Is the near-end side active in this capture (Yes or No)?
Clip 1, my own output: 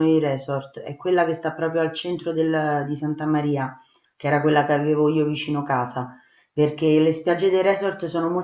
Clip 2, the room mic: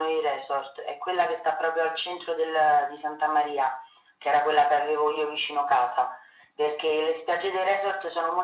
No